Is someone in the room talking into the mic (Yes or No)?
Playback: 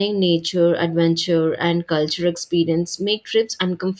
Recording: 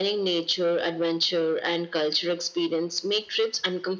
No